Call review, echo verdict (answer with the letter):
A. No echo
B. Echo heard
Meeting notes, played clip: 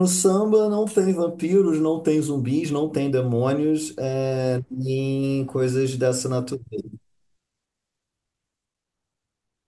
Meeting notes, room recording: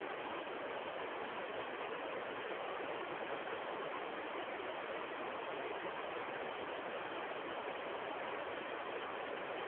A